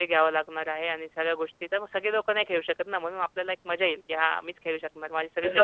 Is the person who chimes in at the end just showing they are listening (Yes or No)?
No